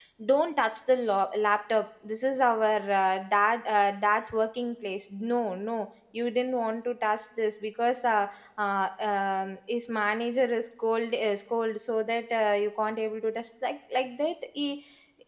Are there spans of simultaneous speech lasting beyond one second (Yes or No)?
No